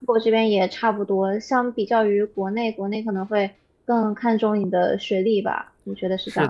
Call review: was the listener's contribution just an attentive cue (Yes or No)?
No